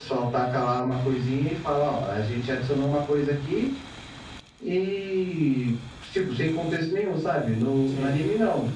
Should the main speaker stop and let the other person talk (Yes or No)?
No